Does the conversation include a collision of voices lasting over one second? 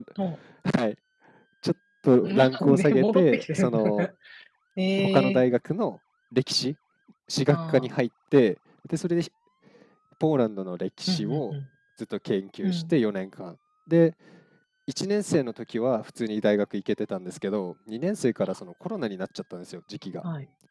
Yes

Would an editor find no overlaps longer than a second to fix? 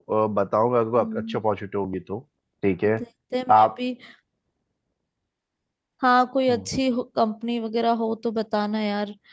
Yes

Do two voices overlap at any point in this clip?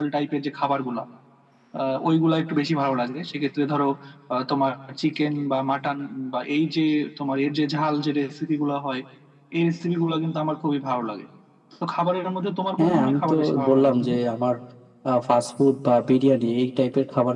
Yes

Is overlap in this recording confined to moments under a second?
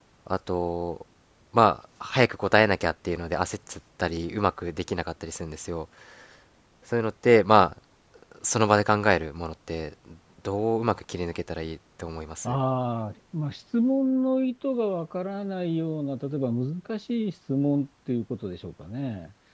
Yes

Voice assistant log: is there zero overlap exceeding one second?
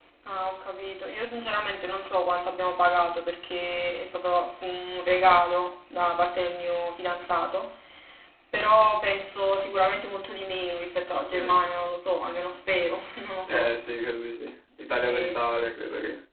Yes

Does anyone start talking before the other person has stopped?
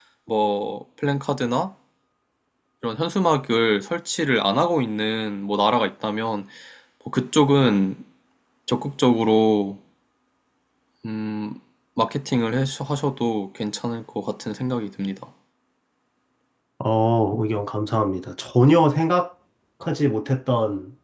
No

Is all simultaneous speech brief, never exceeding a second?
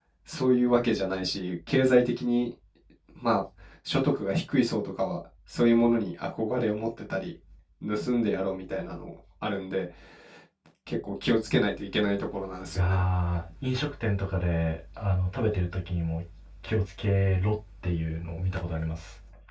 Yes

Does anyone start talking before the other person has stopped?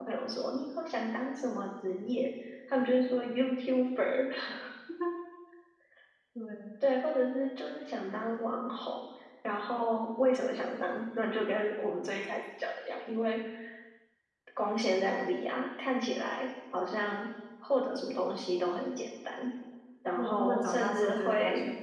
Yes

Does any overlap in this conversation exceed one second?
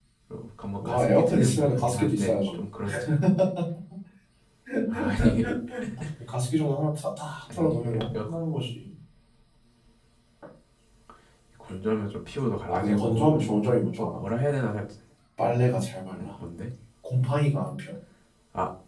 Yes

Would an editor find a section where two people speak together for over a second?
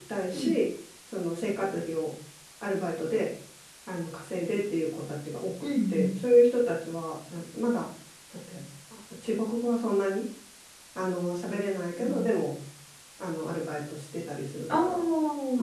No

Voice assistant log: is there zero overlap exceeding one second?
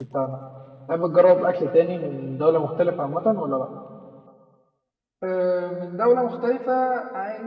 Yes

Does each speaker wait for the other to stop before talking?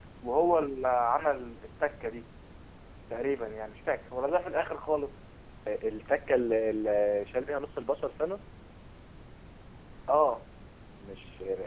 Yes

